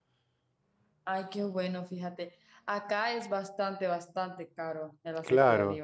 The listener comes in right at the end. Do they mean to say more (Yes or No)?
Yes